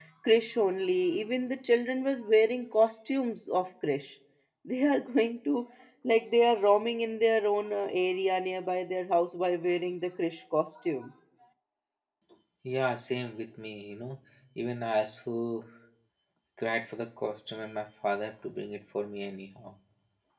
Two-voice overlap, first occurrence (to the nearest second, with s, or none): none